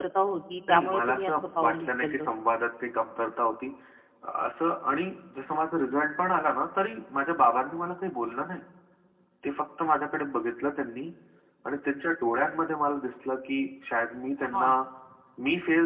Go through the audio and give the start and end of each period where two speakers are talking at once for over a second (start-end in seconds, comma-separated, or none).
0.7-2.3